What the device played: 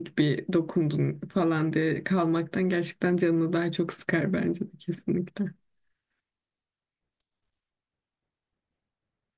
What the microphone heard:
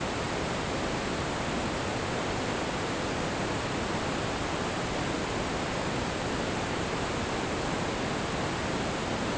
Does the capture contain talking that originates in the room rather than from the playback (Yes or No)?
No